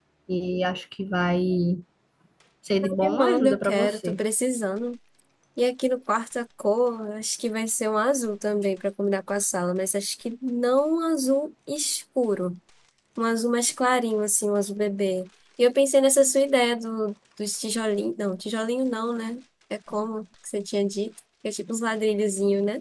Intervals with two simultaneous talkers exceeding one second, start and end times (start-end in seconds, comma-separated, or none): 2.8-4.2